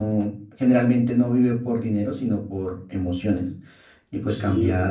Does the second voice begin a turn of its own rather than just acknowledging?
Yes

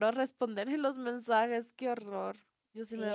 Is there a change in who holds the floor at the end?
Yes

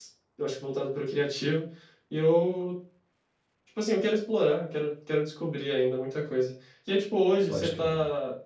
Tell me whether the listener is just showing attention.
Yes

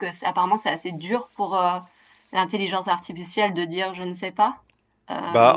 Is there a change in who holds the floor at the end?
Yes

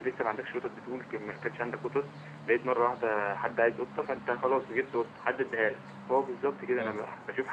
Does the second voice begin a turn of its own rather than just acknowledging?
No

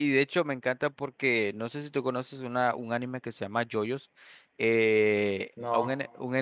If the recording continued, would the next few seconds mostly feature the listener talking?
No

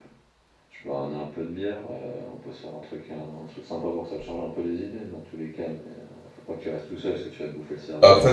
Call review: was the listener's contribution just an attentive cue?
No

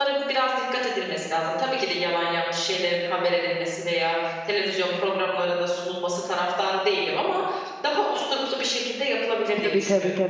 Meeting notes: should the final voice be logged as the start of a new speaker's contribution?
Yes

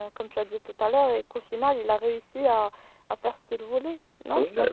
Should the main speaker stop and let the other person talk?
Yes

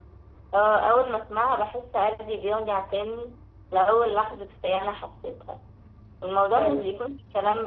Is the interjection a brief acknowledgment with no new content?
Yes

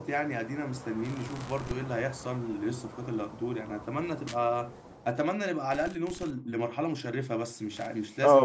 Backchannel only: No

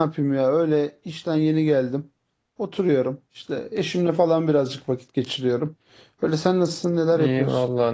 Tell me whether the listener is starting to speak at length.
Yes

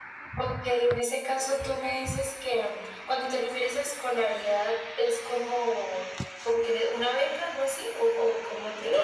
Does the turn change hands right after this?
Yes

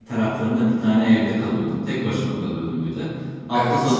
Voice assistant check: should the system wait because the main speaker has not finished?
Yes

